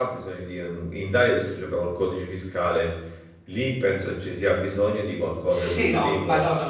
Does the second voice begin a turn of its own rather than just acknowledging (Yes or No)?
Yes